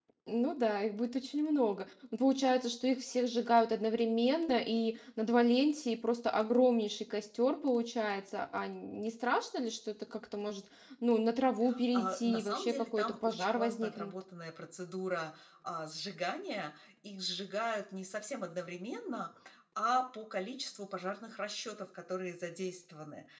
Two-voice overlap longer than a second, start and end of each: 11.9-14.1

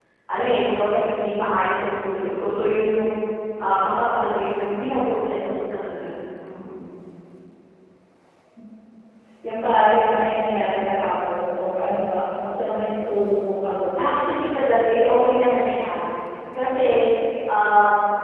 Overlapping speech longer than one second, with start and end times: none

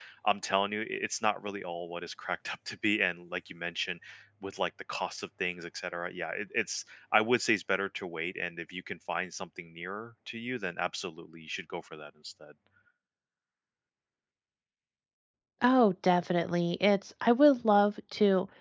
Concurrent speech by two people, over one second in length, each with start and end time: none

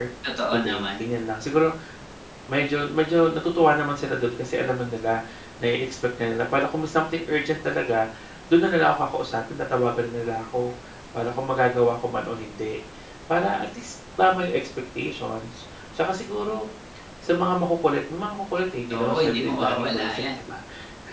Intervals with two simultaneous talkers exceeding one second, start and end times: 18.9-20.4

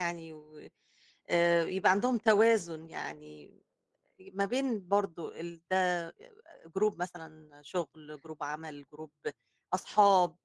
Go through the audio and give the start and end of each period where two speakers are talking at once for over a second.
none

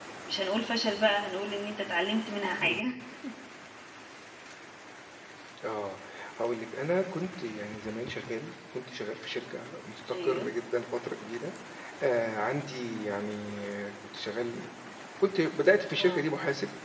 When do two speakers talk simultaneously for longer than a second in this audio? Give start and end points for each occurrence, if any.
none

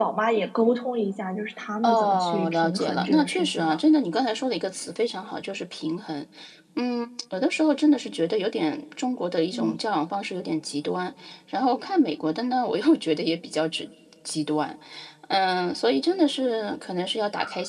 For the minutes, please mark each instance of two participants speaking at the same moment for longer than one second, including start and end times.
1.8-3.8

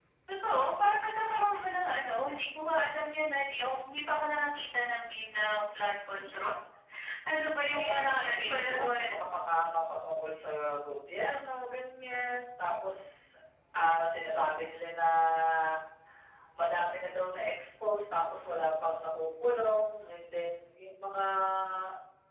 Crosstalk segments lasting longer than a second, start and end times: 7.6-9.2

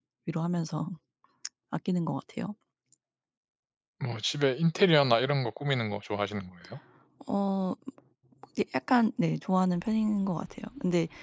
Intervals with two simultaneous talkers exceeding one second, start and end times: none

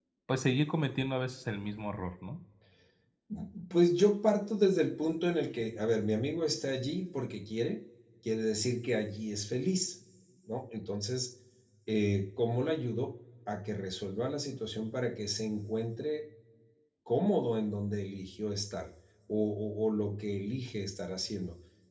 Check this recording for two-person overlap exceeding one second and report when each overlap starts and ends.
none

